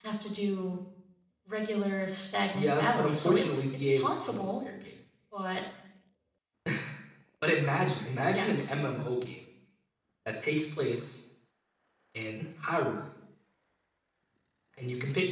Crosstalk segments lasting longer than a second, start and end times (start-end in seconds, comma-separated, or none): 2.5-4.6